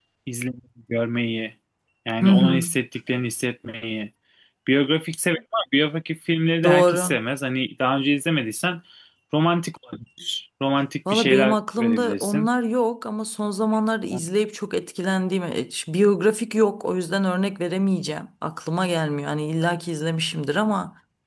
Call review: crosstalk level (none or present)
present